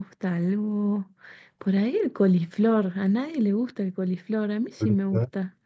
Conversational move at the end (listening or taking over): listening